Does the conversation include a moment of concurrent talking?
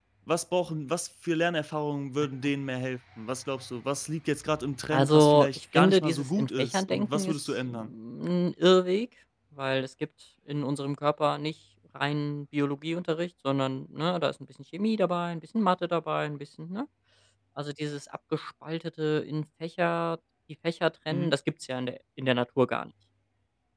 Yes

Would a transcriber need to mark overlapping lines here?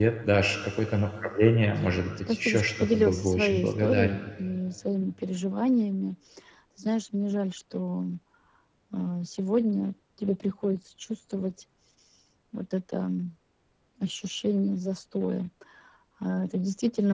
Yes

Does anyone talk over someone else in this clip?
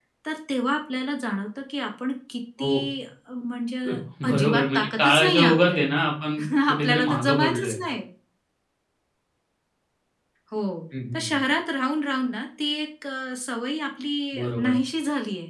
Yes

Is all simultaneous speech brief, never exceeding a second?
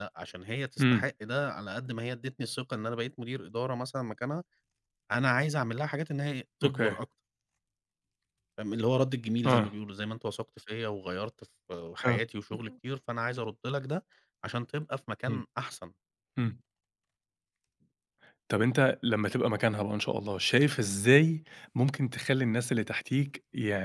Yes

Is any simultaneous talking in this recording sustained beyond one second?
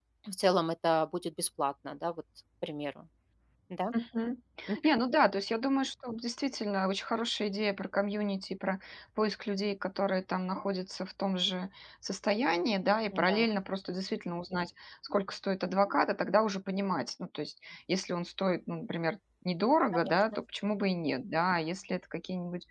No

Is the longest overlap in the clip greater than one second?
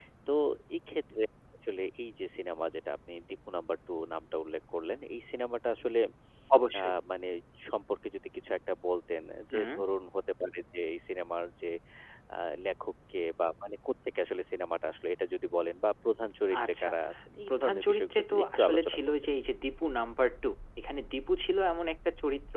Yes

